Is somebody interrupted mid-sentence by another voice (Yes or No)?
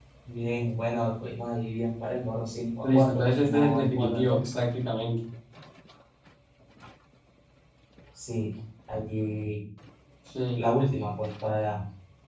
Yes